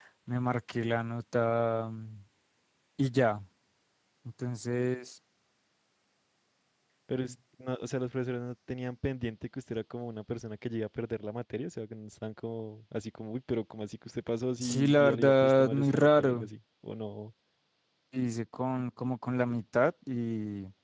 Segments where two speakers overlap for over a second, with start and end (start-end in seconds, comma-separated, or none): 14.6-16.5